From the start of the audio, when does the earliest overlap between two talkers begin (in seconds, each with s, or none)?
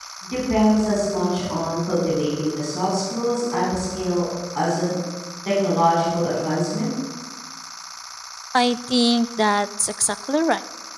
none